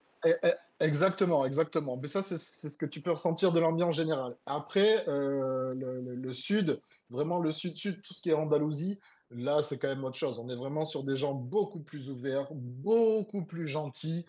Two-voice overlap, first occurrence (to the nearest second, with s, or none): none